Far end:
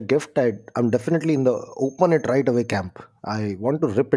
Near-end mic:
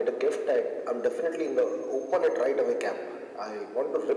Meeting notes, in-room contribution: none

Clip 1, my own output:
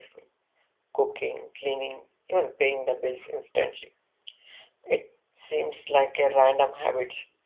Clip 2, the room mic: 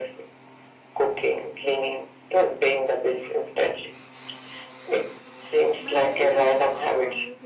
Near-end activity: present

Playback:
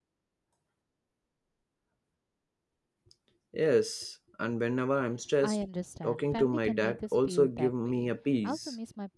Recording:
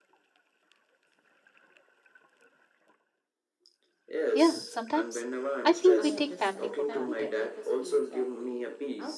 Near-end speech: present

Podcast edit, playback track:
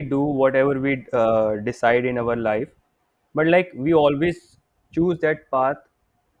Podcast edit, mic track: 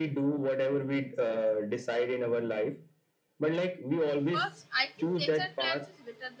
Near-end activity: present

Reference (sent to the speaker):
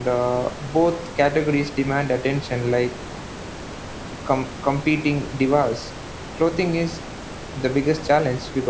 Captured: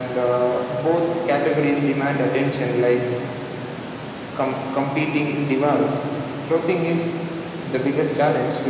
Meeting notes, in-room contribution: none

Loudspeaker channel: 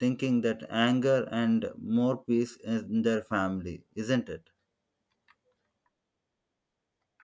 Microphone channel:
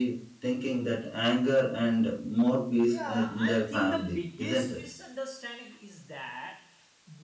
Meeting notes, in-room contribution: present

